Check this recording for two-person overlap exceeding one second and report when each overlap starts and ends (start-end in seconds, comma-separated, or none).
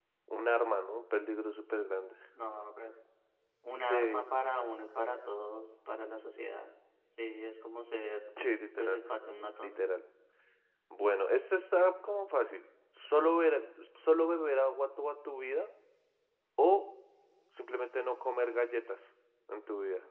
none